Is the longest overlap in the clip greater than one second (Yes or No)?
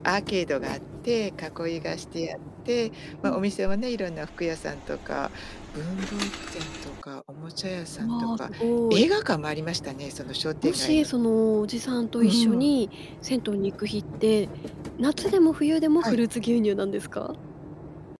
No